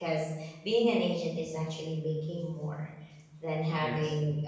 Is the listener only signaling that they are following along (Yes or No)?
Yes